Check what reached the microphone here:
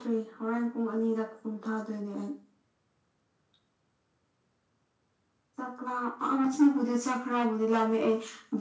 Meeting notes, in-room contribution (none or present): none